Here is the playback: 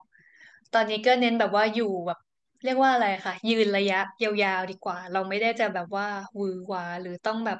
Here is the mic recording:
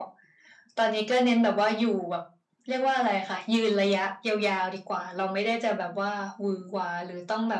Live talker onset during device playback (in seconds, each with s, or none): none